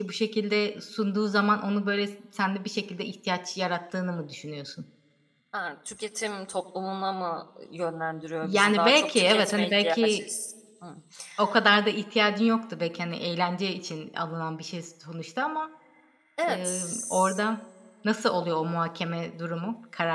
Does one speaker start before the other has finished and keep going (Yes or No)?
Yes